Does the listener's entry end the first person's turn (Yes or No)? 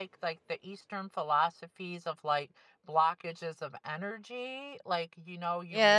Yes